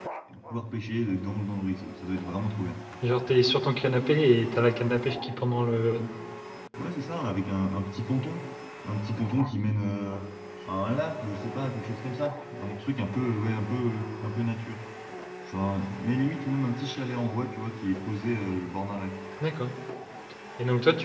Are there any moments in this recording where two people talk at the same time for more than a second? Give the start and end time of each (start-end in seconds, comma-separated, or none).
none